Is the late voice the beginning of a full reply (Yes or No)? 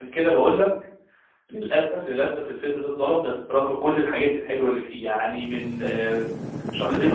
No